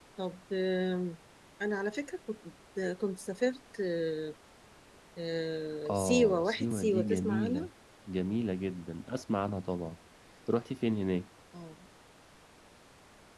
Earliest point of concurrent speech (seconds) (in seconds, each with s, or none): 5.9 s